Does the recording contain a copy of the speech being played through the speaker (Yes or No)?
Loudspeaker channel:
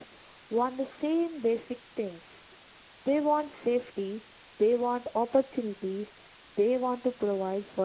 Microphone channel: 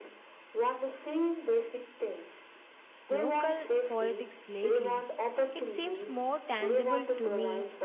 Yes